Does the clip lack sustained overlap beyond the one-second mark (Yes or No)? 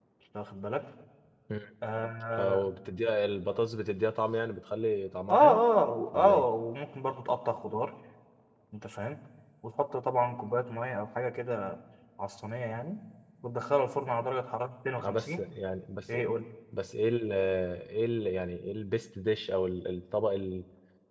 Yes